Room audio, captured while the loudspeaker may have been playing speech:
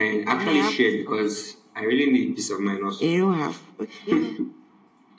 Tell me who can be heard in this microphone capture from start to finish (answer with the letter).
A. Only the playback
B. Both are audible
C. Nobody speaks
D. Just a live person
A